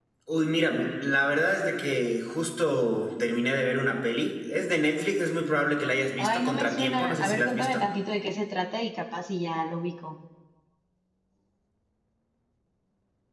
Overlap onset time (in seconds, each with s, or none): 6.2 s